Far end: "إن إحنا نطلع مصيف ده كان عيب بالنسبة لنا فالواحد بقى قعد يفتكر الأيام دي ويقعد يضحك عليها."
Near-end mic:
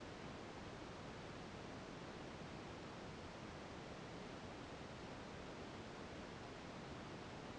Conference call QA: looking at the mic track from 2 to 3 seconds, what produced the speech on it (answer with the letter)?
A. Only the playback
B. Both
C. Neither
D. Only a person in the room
C